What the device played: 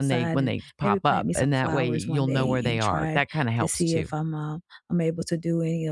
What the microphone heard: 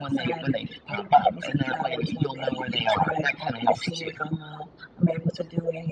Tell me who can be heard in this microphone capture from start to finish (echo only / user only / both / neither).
echo only